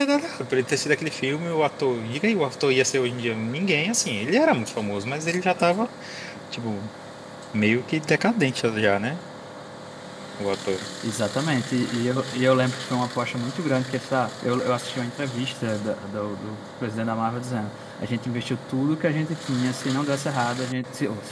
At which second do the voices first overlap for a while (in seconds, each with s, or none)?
none